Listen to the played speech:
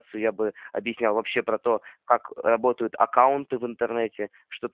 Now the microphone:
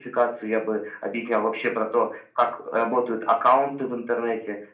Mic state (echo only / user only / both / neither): echo only